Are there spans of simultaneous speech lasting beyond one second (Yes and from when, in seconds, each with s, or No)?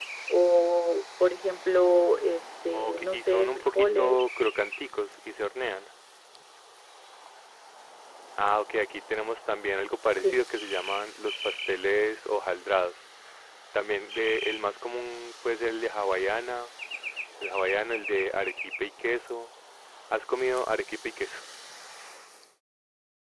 Yes, from 2.7 s